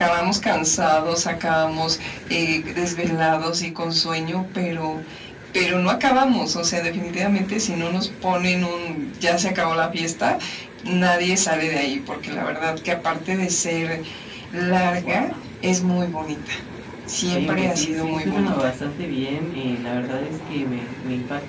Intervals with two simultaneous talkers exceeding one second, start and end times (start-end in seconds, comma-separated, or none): 17.3-18.6